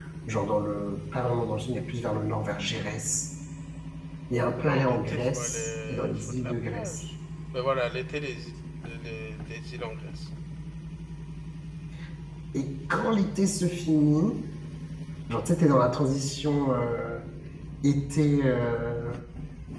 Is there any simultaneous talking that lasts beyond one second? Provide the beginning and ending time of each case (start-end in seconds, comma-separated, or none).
4.6-7.0